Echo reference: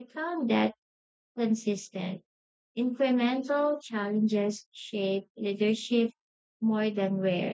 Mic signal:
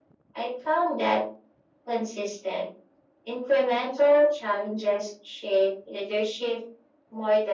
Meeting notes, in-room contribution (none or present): none